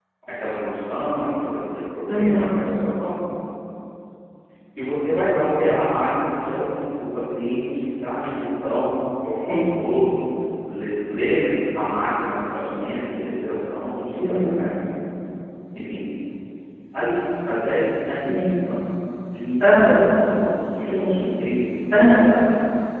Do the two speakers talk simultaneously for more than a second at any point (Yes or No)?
No